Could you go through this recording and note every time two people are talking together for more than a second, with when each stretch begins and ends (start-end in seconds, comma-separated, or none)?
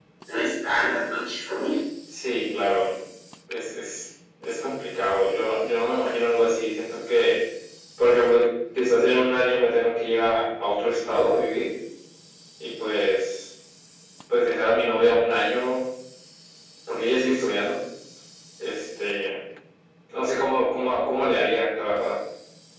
none